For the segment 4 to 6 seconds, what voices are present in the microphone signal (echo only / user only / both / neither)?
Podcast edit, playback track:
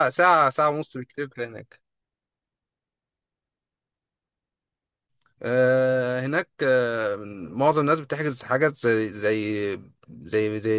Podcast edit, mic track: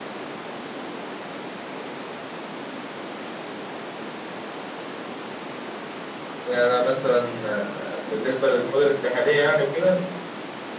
neither